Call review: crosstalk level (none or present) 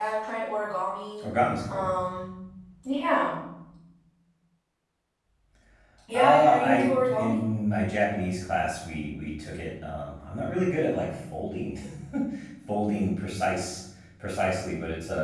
present